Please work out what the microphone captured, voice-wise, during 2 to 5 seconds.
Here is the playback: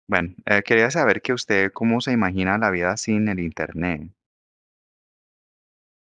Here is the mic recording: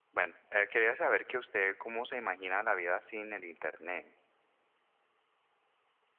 echo only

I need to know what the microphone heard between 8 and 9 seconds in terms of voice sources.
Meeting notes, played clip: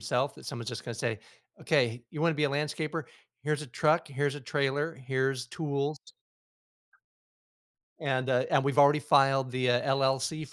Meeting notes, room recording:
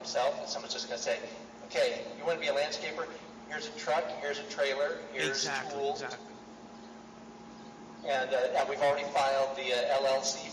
echo only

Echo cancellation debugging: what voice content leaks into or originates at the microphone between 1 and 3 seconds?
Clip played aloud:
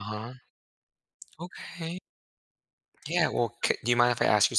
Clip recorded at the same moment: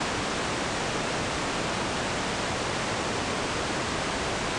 neither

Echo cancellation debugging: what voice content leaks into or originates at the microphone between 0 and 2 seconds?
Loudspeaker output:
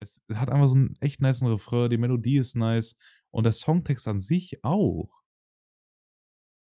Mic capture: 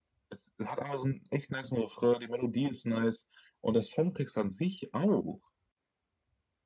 echo only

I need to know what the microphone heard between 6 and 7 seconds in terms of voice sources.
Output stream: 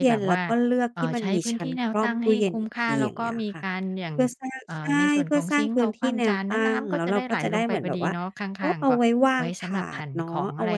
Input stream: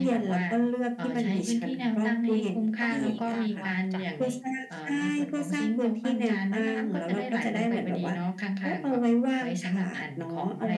echo only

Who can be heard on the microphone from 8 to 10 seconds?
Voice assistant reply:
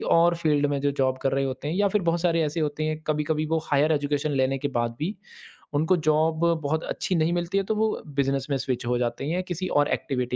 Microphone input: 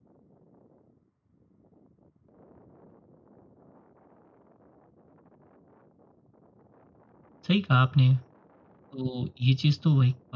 user only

